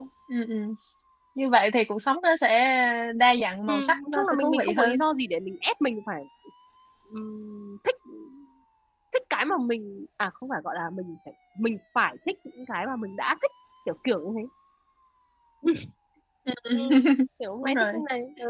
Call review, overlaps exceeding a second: present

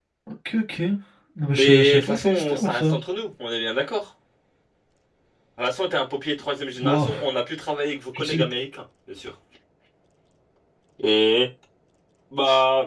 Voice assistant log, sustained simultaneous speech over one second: present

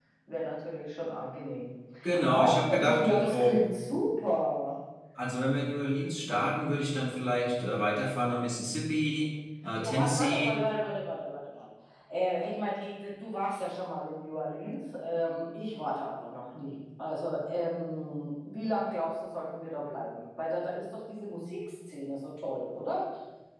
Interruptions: present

